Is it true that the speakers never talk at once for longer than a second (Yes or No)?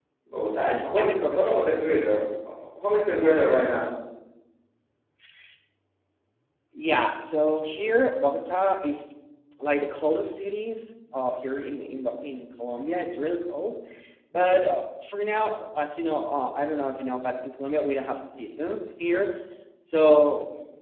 Yes